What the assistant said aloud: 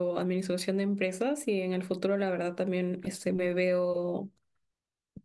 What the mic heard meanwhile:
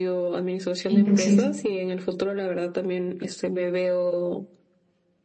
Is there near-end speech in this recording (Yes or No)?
Yes